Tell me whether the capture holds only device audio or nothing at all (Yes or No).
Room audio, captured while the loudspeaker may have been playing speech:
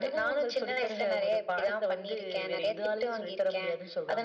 Yes